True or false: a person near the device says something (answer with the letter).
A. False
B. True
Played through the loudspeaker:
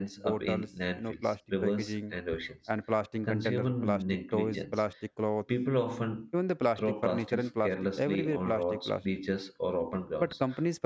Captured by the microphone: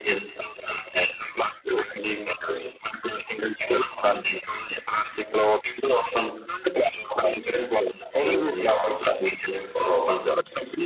A